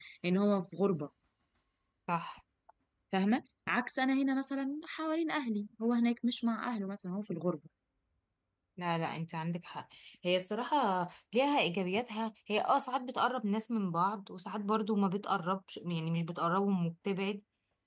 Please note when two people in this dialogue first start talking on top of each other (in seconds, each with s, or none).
none